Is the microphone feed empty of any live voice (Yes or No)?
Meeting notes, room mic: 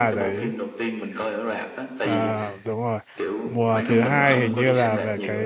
No